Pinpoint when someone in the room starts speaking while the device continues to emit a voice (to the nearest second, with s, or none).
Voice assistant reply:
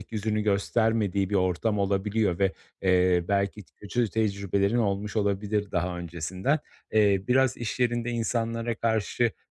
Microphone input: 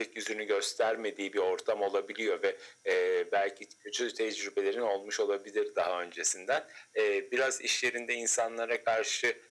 none